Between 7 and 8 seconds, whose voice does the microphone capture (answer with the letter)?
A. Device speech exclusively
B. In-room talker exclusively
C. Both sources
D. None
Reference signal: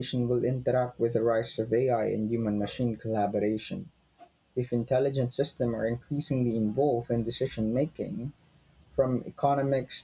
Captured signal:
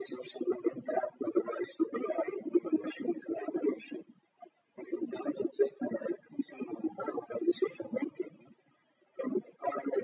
A